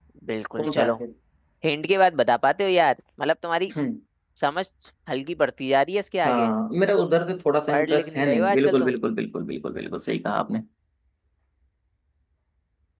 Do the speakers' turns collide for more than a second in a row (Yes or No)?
Yes